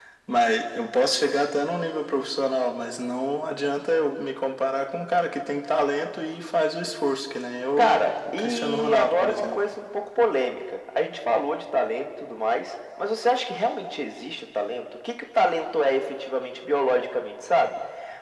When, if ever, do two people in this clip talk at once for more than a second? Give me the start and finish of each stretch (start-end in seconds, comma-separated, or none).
7.8-9.6